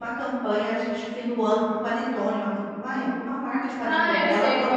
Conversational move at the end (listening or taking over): taking over